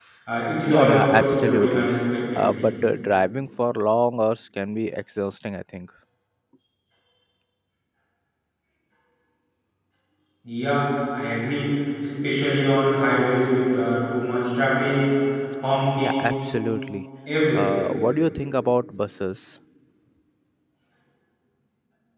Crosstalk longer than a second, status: present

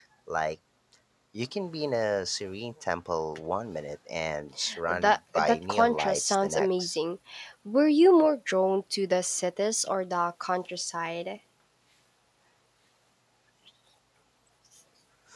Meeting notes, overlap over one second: present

